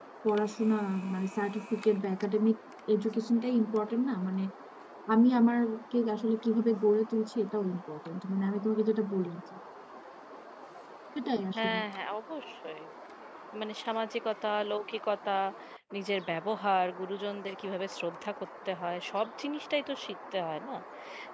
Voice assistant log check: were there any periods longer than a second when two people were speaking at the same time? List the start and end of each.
none

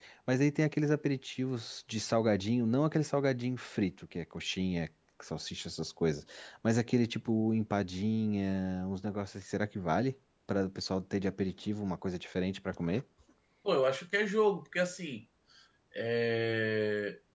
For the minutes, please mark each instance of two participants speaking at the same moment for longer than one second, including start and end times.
none

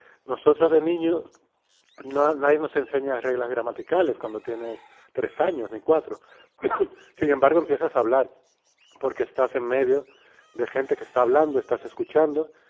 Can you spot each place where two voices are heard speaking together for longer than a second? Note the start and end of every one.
none

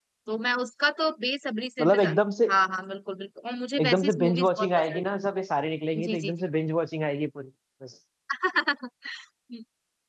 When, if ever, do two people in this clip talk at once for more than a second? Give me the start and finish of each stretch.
3.8-5.0

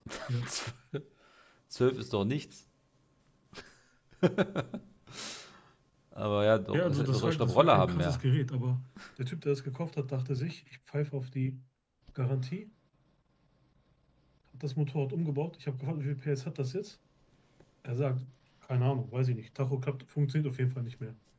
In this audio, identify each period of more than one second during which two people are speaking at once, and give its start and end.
6.7-8.2

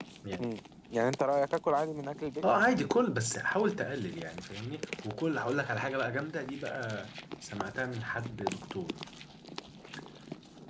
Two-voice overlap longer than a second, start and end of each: none

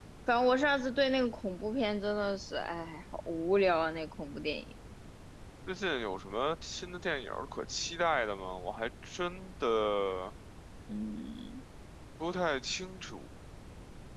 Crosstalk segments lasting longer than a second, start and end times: none

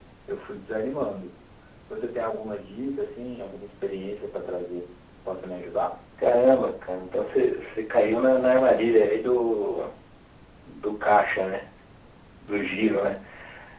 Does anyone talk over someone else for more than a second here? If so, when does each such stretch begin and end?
none

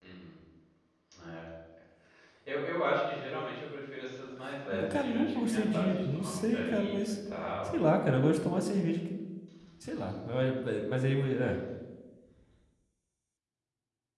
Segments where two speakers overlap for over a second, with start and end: 4.7-7.0

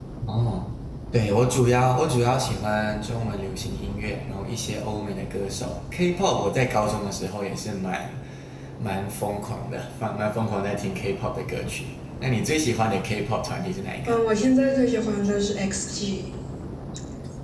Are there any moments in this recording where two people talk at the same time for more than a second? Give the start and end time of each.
none

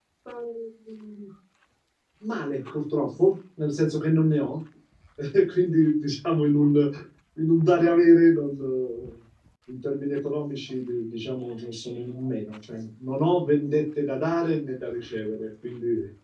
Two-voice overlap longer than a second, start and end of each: none

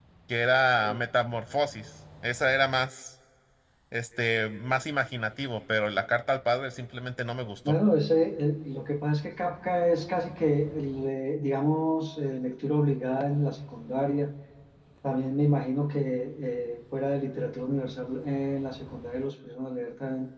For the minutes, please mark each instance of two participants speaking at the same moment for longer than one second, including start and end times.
none

